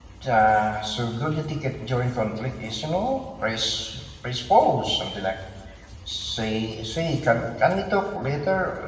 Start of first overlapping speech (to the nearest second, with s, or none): none